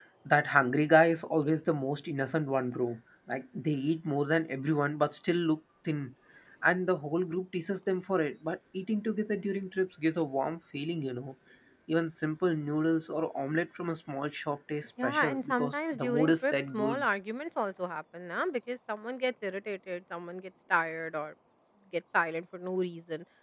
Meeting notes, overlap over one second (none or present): present